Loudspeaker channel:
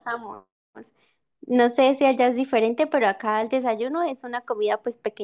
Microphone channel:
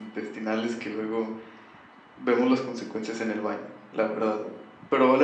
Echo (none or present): none